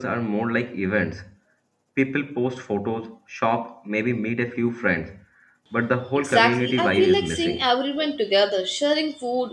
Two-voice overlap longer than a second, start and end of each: 6.2-7.7

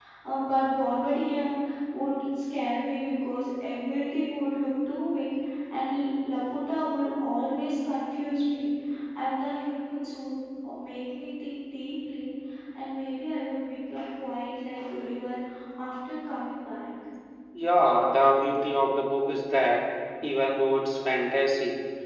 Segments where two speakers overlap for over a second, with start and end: none

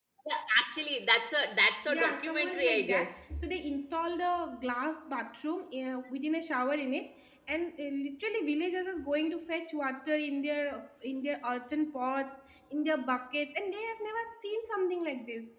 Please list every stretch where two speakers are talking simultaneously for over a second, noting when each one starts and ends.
1.9-3.1

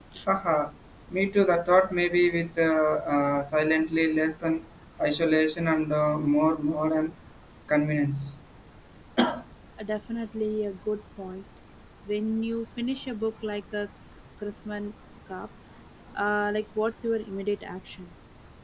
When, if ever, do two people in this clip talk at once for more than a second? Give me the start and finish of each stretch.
none

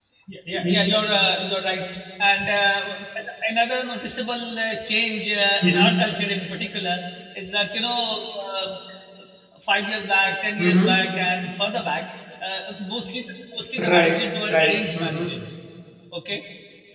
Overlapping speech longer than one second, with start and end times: 13.9-15.2

